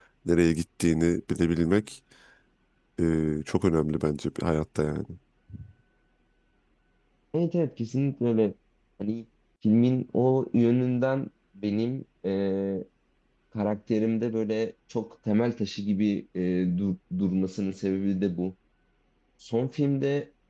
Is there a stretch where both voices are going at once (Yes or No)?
No